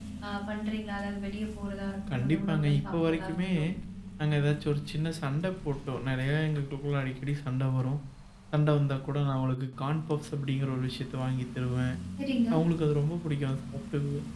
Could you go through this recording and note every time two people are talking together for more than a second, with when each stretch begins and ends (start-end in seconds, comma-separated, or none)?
2.1-3.5